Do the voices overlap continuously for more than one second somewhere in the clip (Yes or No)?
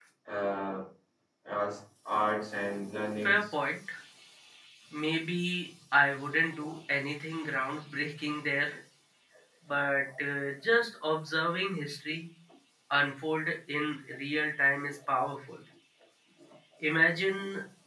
No